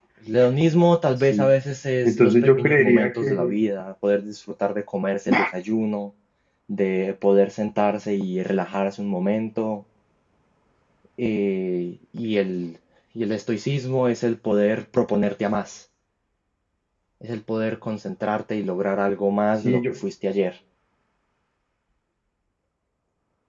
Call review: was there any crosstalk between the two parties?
Yes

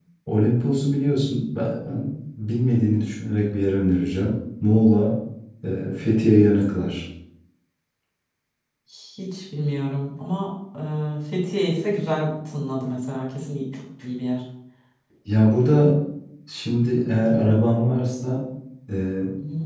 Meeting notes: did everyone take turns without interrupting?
Yes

